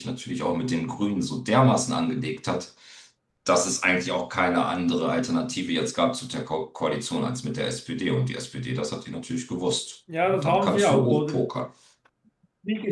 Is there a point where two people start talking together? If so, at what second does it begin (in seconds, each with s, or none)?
10.1 s